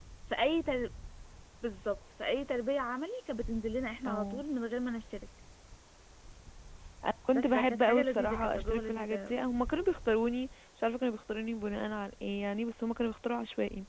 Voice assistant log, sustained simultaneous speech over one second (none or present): present